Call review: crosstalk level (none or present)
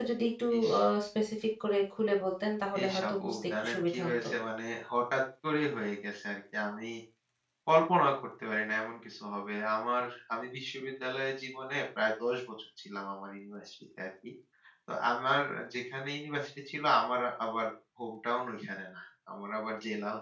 present